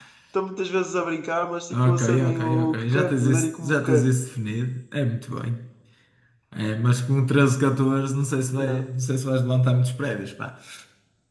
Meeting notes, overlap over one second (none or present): present